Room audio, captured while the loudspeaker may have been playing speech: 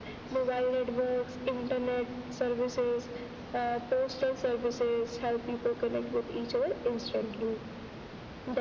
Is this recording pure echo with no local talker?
Yes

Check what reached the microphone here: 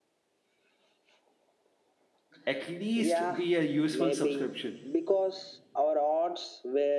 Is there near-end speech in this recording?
Yes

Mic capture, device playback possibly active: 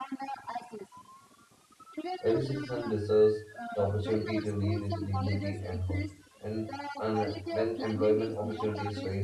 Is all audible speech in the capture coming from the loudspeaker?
No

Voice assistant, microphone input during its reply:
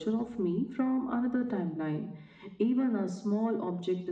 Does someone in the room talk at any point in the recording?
No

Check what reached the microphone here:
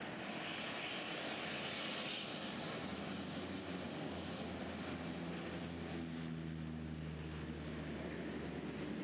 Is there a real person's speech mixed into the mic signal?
No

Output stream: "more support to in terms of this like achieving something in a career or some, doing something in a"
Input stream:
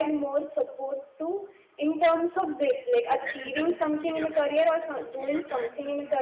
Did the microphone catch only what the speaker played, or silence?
No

